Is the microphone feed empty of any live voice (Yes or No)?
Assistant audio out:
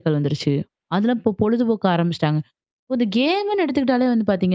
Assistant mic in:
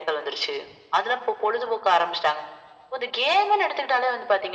Yes